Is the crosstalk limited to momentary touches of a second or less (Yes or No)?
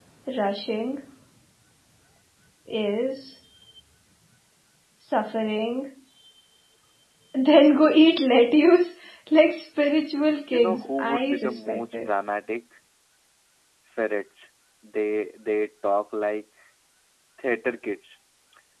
No